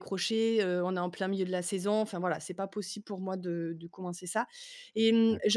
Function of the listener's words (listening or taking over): listening